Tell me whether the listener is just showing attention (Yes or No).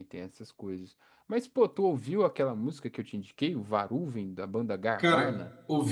No